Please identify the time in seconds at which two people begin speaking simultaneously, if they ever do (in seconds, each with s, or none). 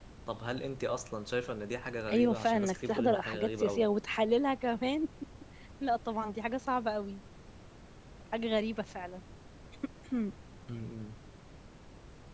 2.1 s